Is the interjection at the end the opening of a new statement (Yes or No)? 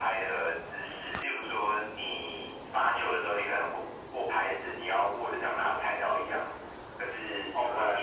No